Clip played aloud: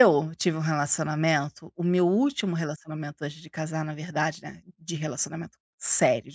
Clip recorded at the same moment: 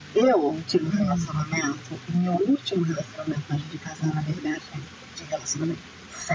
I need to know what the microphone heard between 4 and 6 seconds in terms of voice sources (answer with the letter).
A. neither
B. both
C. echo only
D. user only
C